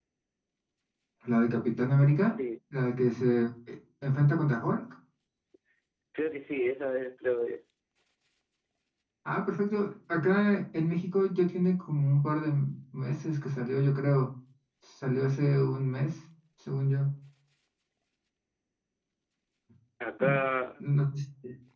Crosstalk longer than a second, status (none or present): none